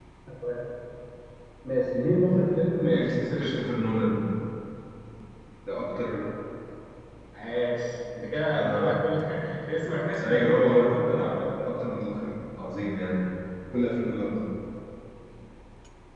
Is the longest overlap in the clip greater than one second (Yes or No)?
Yes